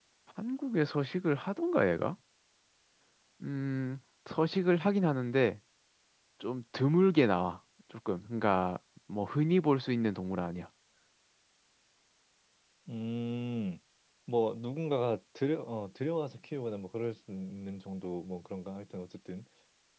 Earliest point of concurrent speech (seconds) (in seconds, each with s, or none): none